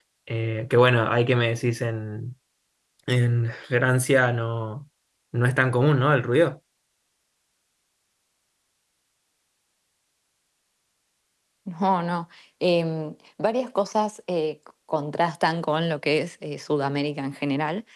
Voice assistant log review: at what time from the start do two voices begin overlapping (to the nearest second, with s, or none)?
none